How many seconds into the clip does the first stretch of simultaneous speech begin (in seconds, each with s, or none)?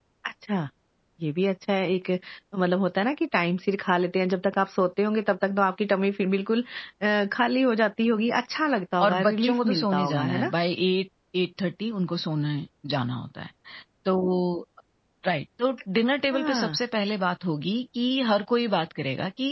9.0 s